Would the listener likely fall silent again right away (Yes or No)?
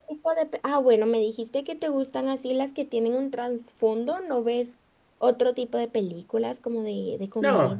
No